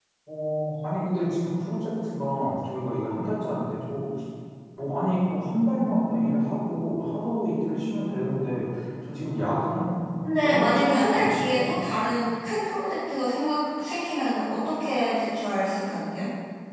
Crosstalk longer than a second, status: present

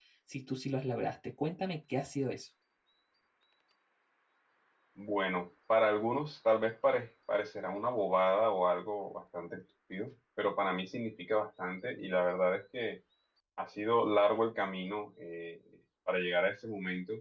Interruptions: none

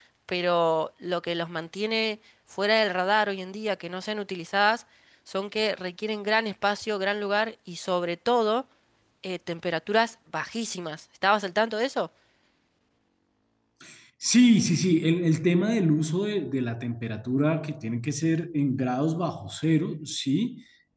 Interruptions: none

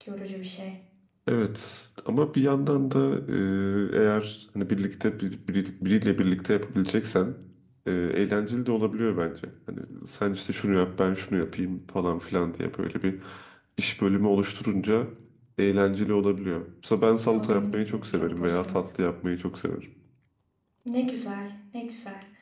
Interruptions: present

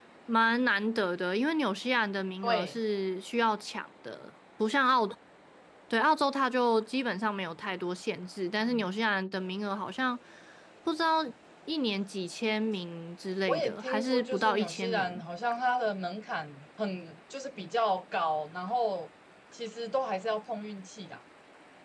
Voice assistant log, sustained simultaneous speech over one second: present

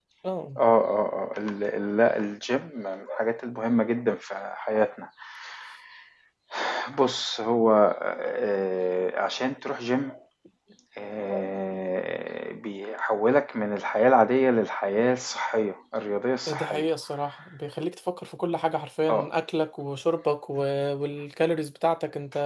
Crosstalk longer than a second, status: none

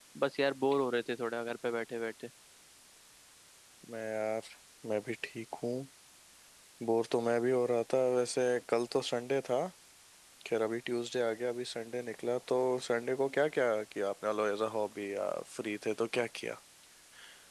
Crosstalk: none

